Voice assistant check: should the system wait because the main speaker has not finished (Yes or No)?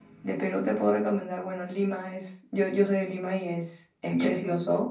Yes